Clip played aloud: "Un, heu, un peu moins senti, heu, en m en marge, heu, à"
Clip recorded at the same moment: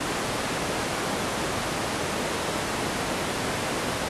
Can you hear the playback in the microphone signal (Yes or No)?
No